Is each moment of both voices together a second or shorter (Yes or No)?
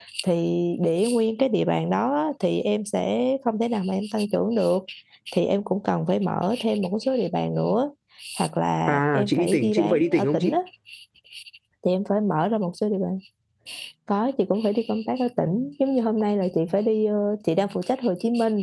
No